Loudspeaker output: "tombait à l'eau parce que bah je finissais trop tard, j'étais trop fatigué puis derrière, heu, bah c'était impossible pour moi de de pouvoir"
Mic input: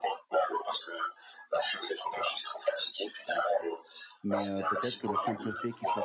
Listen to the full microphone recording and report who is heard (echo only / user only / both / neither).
both